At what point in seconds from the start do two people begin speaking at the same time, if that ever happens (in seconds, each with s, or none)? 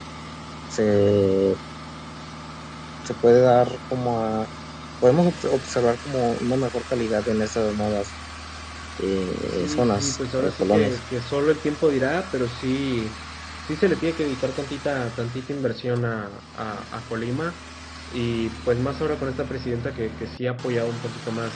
9.5 s